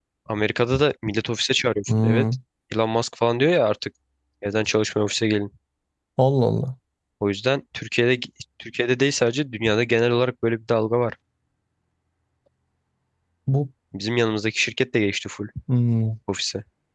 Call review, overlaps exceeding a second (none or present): none